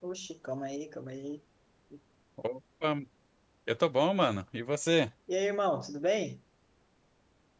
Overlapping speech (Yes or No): No